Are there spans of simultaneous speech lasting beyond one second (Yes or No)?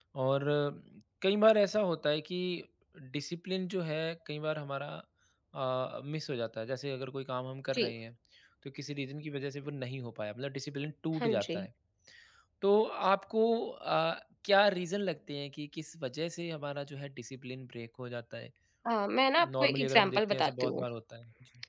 Yes